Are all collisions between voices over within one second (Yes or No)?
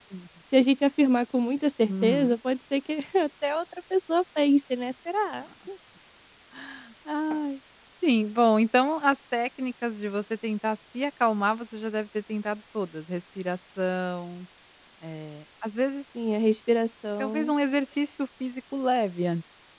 Yes